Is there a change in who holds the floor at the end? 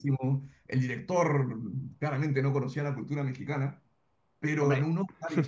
No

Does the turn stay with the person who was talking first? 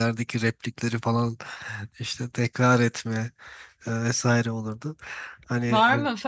No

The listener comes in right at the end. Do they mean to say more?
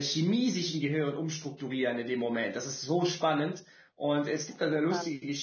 No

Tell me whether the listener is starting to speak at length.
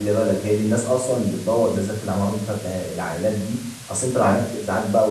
No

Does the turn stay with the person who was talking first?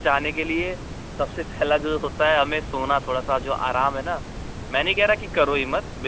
Yes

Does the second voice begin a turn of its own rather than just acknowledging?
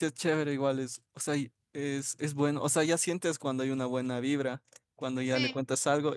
No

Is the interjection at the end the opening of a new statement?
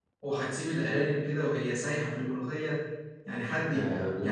Yes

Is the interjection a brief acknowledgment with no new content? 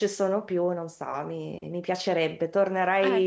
Yes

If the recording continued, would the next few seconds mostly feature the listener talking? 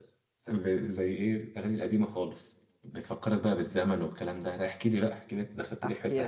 Yes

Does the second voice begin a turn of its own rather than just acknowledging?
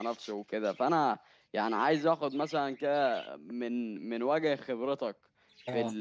No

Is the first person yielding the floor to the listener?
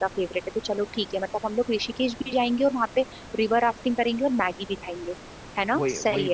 Yes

